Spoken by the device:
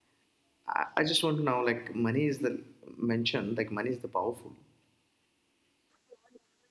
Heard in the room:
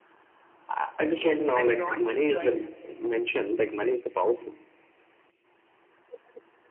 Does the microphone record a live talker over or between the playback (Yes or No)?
Yes